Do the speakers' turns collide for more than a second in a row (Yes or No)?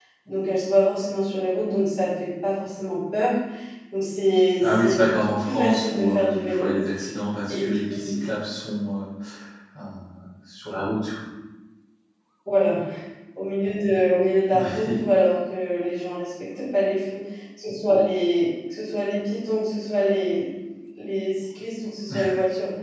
Yes